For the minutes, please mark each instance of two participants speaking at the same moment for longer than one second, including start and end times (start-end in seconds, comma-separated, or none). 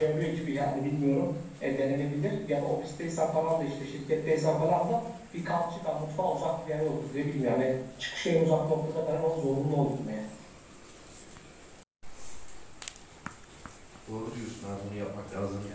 none